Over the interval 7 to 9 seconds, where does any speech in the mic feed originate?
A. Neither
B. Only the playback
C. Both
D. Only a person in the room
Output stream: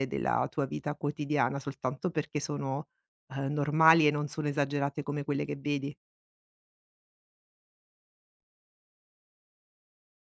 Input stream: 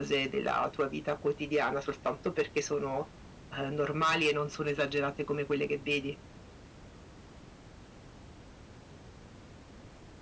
A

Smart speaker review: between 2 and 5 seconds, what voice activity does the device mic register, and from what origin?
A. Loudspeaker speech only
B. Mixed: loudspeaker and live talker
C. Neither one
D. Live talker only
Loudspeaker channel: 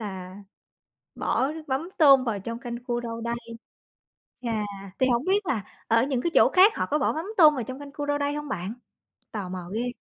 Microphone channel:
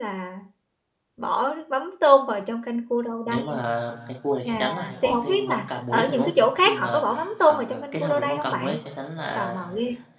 B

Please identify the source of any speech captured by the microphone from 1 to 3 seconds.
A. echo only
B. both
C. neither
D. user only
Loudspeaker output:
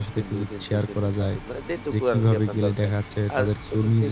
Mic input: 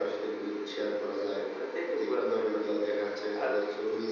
A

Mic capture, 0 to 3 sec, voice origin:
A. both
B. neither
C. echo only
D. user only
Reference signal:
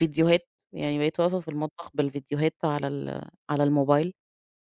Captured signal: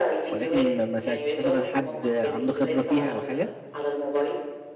A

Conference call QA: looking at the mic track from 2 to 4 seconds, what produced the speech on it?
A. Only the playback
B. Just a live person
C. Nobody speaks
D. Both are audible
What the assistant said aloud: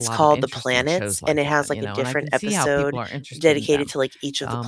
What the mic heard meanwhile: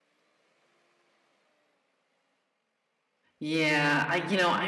B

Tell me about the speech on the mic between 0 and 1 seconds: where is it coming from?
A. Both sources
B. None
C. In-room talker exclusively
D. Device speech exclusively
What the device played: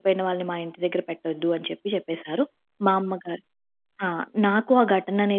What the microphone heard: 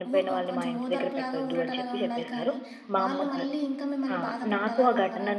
A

